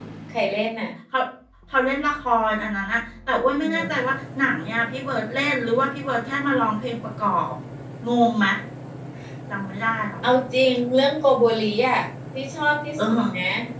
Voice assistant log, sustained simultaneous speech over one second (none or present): none